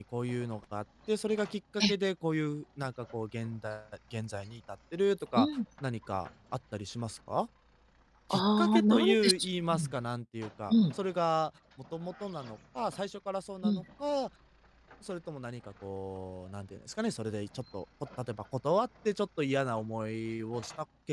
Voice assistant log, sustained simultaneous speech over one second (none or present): present